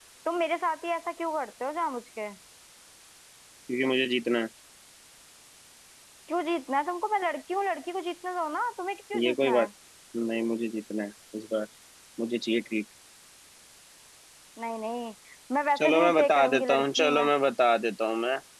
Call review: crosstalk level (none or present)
present